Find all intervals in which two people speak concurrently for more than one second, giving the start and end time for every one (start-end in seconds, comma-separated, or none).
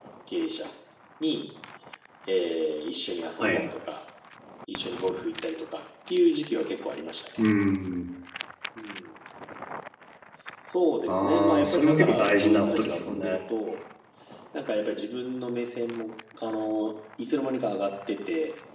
11.1-13.4